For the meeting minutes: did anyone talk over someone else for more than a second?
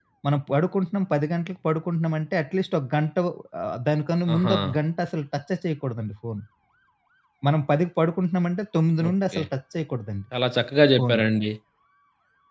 No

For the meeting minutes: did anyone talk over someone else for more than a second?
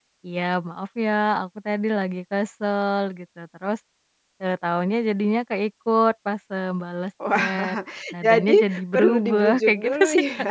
Yes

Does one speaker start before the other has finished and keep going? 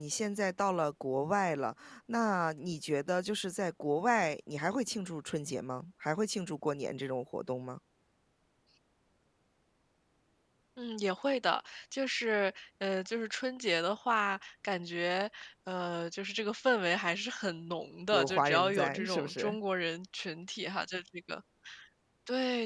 Yes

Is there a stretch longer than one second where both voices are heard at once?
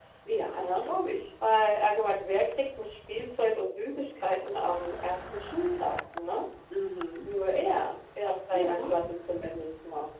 No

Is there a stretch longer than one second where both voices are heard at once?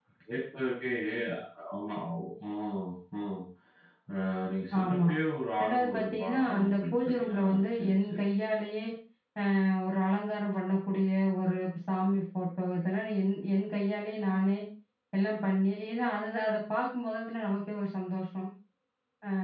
Yes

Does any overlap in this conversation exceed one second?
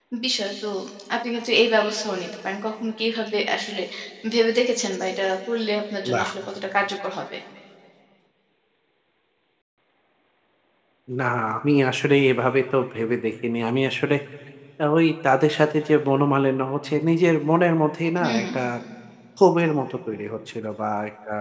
No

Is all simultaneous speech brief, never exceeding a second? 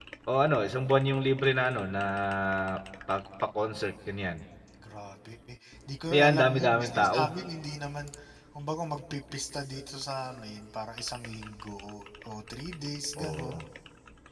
No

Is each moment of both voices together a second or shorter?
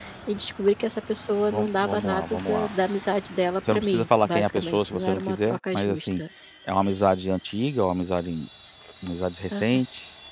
No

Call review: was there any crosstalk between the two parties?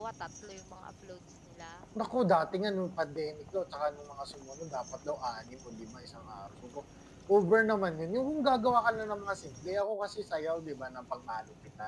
No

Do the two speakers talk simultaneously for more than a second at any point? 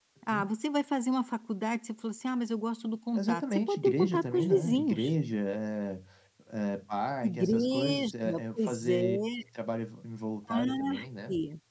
Yes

